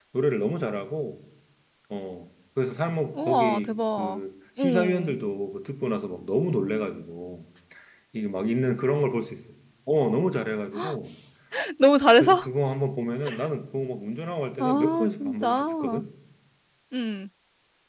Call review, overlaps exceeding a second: present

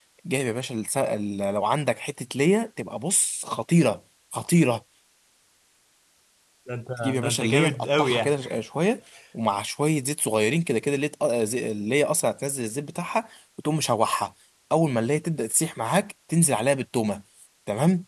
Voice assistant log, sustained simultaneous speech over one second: present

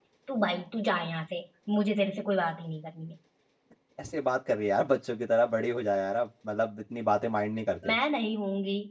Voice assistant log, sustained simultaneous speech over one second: none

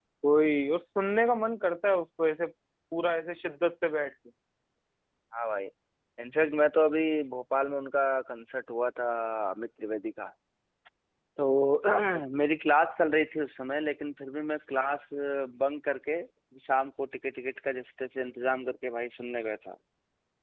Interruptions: none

